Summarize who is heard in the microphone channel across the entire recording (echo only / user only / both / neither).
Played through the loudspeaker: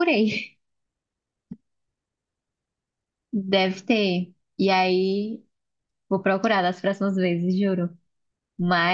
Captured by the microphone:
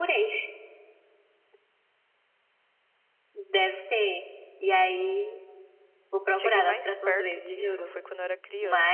both